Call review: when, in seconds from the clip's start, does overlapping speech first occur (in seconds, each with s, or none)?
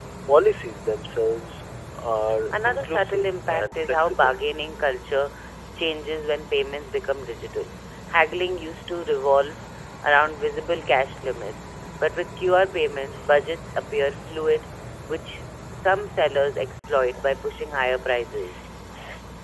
2.5 s